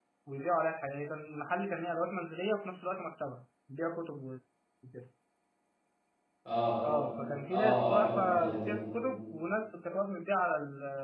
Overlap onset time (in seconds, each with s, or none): 7.5 s